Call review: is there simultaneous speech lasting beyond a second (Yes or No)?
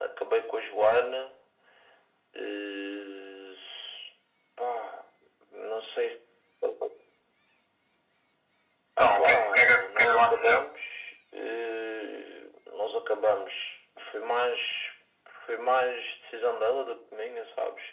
Yes